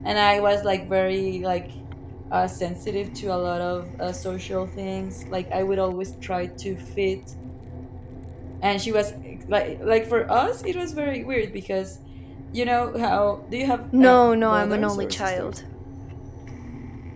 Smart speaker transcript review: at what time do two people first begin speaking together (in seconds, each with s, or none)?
13.9 s